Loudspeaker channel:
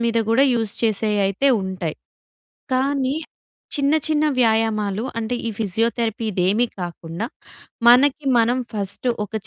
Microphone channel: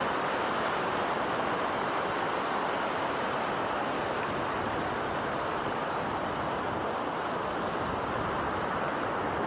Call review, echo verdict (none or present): none